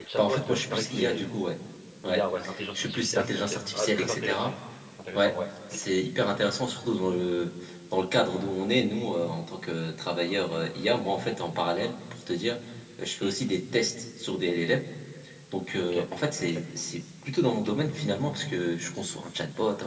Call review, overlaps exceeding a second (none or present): present